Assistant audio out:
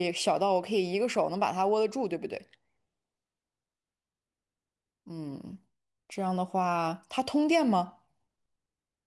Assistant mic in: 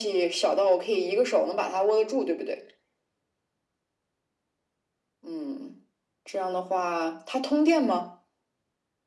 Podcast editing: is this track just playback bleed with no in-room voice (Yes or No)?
Yes